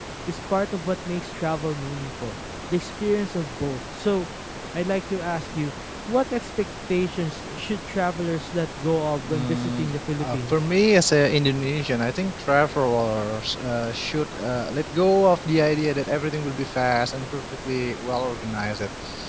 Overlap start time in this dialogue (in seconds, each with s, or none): 9.2 s